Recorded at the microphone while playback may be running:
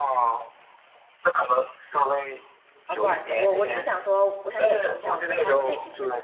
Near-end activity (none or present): present